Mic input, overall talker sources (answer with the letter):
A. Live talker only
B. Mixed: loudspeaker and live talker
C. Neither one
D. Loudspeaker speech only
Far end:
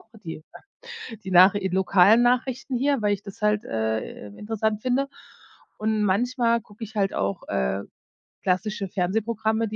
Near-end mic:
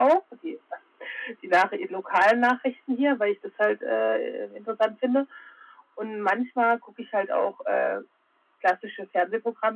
D